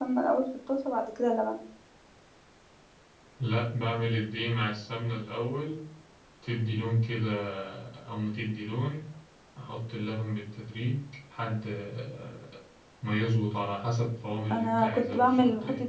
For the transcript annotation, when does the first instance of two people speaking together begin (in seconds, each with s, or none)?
14.4 s